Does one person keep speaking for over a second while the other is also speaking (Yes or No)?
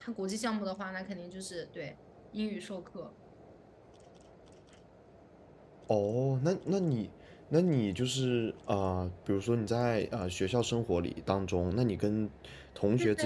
No